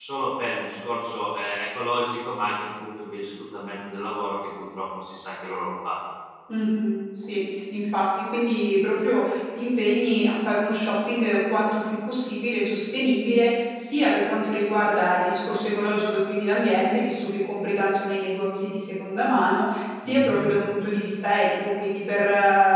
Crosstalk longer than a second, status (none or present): none